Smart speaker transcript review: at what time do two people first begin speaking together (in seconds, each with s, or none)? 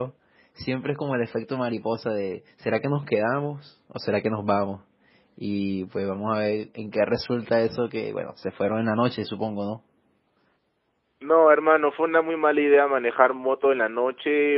none